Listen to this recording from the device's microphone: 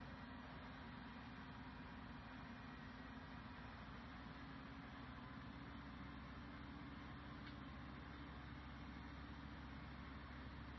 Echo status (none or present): none